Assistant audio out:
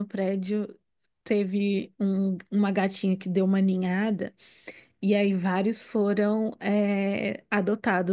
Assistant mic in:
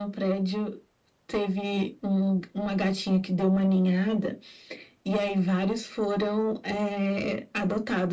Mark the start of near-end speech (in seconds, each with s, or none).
none